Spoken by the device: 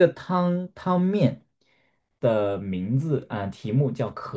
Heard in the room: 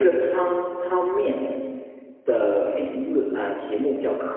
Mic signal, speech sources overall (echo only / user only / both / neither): echo only